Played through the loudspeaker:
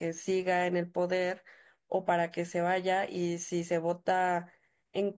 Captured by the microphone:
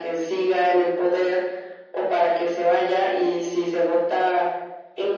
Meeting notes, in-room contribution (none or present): none